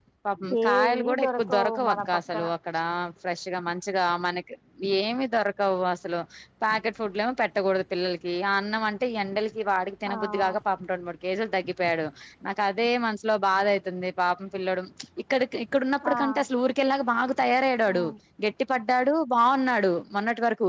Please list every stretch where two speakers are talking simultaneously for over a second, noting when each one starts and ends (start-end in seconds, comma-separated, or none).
0.7-2.5